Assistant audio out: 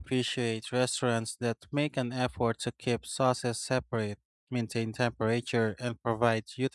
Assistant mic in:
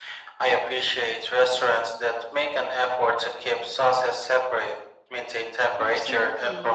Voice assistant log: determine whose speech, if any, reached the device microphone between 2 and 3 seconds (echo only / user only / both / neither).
echo only